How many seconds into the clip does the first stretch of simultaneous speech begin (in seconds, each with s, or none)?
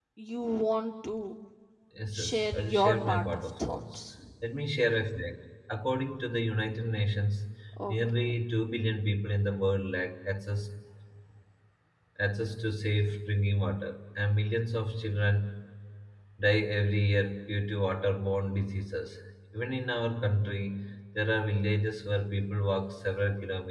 2.1 s